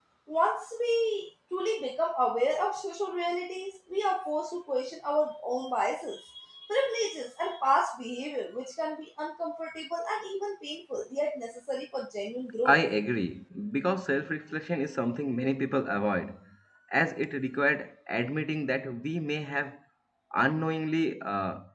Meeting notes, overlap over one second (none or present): none